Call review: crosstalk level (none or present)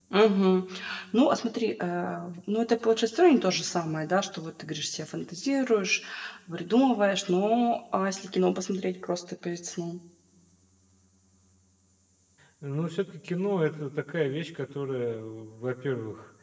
none